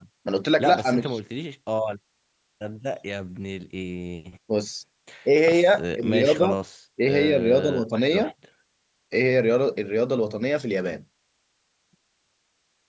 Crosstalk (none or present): present